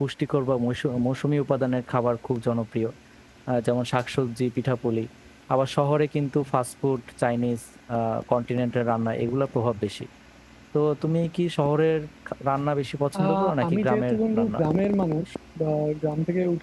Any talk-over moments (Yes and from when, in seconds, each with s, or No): Yes, from 13.2 s